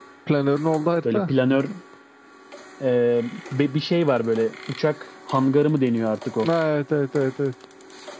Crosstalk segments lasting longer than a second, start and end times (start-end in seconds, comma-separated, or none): none